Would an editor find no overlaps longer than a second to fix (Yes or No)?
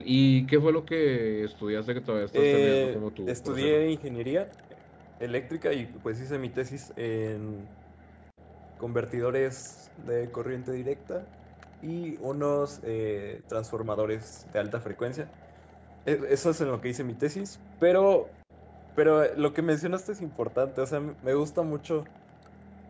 No